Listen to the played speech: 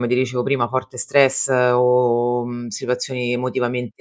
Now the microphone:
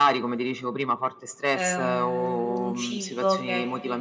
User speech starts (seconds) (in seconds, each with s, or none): 1.5 s